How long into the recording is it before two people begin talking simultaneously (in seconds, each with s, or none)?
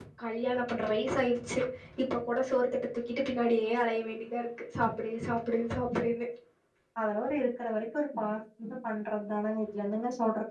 none